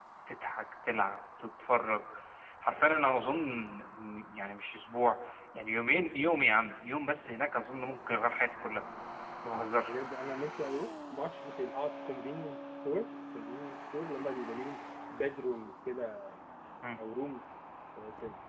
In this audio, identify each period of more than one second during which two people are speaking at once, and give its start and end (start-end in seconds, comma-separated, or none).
none